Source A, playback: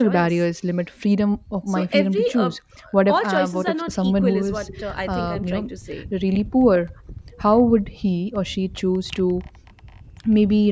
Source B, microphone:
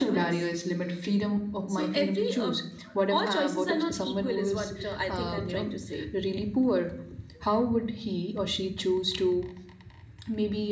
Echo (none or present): present